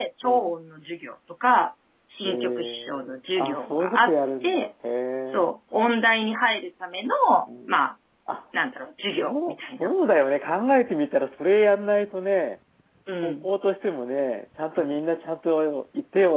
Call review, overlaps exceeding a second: present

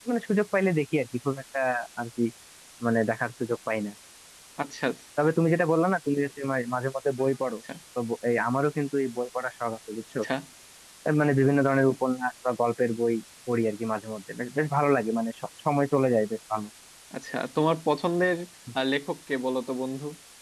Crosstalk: none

